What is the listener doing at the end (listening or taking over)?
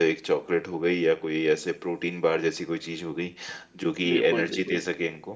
listening